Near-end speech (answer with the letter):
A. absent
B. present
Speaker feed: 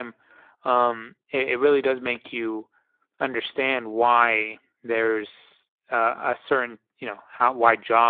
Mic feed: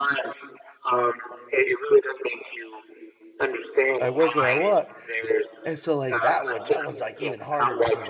B